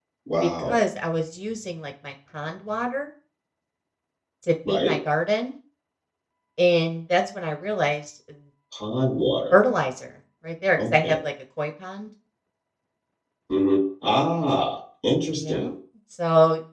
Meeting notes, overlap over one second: none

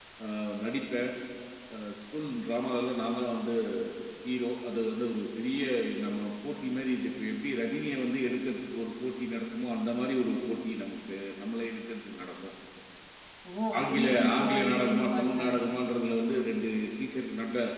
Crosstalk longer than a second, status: present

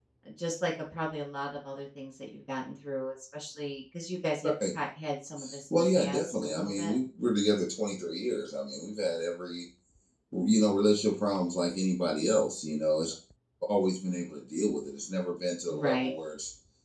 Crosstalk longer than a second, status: present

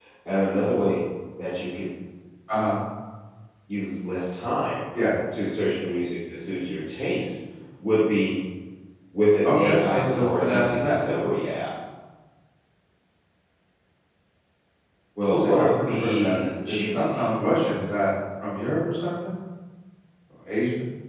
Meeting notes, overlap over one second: present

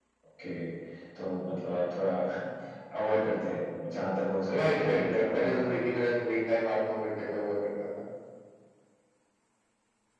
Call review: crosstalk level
present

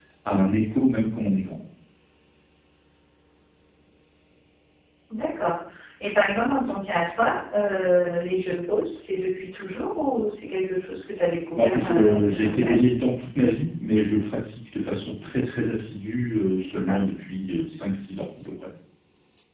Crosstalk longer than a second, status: present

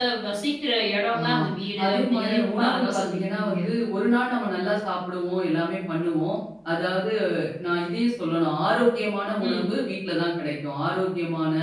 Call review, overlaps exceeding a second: present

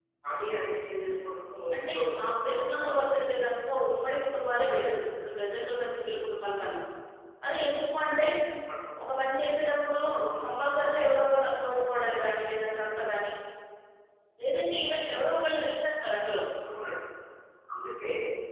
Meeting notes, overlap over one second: present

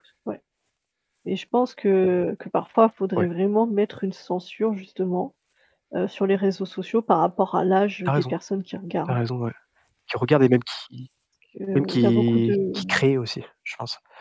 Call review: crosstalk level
present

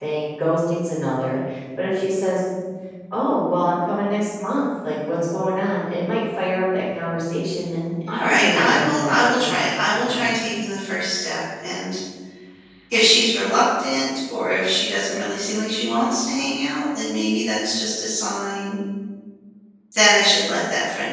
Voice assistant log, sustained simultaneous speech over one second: present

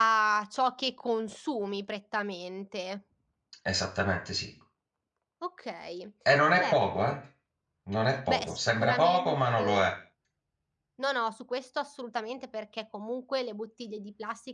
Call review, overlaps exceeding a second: present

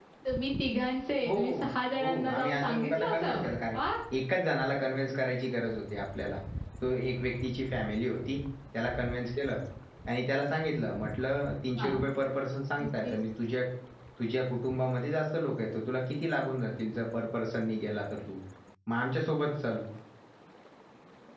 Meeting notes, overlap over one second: present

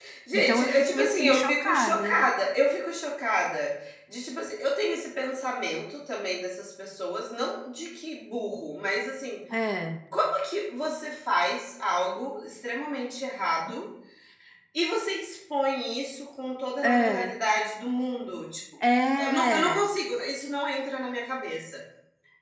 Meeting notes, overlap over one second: present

